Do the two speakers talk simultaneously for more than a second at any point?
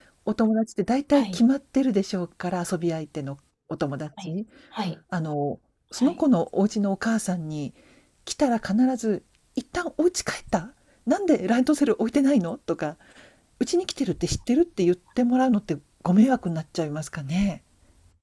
No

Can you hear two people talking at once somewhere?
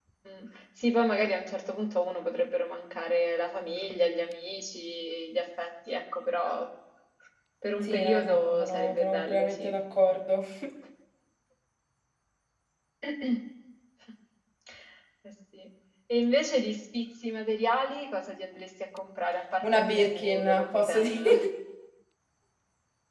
Yes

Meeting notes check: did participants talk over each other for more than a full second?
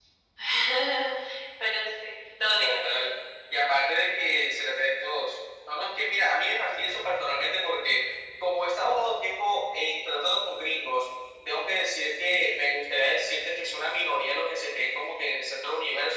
No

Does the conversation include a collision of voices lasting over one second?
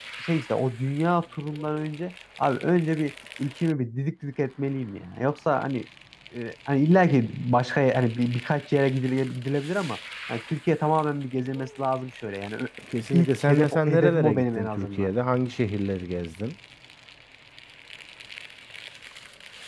Yes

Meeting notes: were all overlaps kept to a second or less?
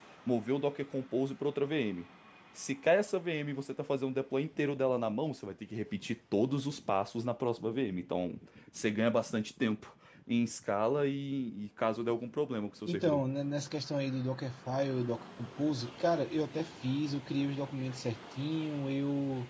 Yes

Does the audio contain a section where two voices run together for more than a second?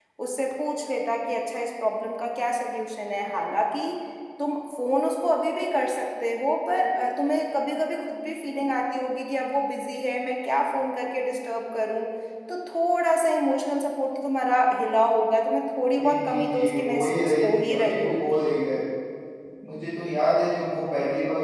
Yes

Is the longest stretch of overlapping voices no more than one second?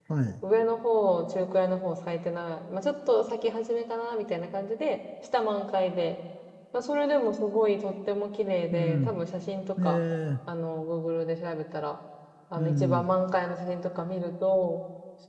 Yes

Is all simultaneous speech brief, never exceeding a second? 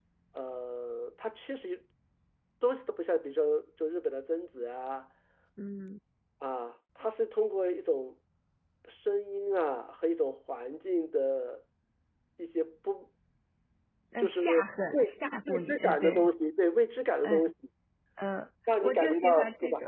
No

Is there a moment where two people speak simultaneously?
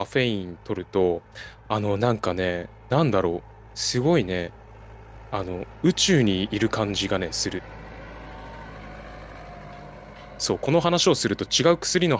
No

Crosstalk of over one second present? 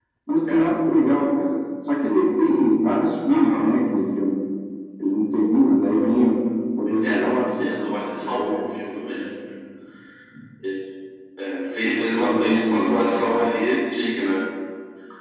Yes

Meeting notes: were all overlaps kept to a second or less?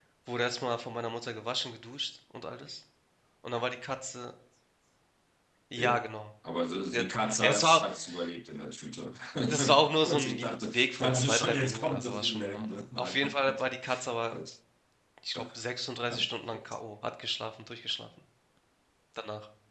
No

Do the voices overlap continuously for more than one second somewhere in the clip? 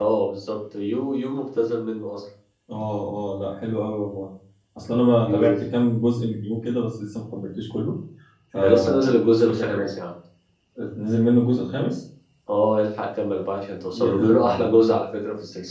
Yes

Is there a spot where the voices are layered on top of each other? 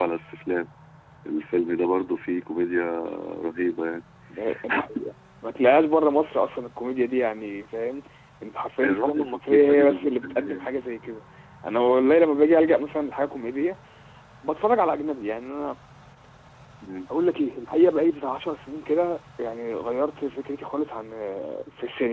Yes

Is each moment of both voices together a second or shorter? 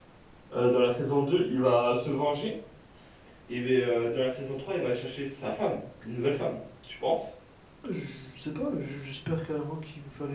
Yes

